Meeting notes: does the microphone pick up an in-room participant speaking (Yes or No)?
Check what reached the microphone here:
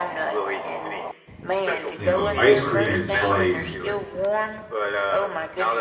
Yes